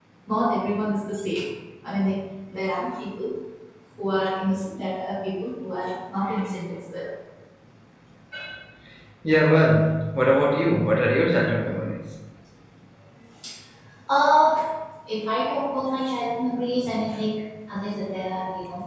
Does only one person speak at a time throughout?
Yes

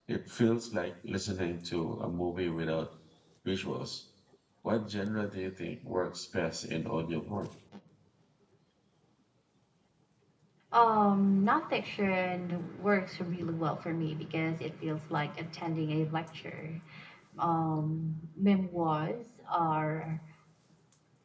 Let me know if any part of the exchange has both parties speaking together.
No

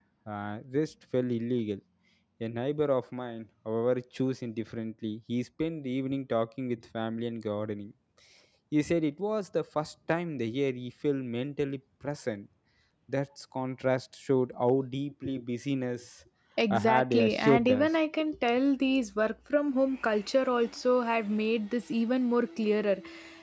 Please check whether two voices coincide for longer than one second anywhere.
Yes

